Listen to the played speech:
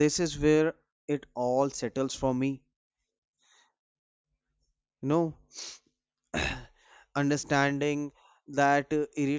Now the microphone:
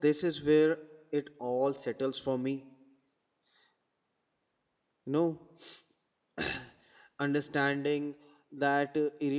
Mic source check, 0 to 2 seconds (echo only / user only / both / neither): echo only